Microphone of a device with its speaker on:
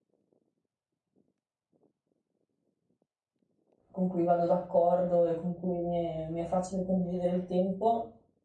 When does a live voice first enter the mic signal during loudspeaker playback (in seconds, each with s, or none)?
3.9 s